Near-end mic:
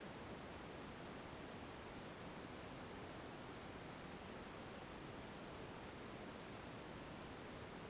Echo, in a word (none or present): none